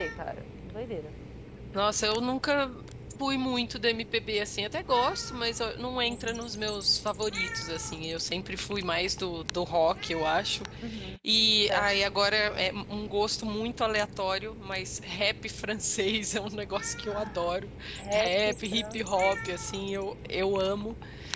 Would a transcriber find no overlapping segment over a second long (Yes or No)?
No